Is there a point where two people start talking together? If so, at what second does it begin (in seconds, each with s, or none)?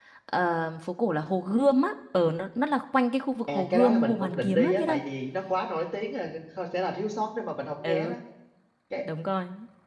3.5 s